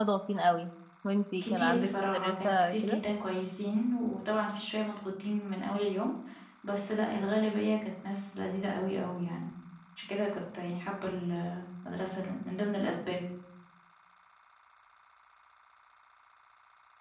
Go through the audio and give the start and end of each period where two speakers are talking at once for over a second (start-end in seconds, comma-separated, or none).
1.4-3.0